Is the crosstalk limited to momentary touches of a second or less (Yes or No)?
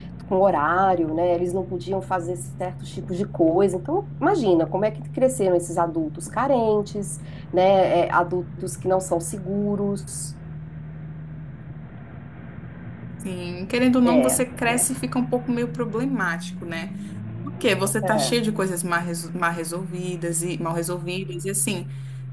Yes